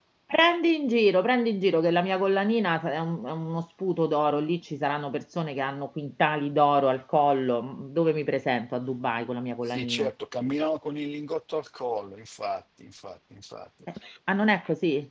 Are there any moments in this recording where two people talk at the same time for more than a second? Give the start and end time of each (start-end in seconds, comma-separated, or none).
none